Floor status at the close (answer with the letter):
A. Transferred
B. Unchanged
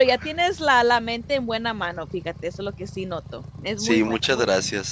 A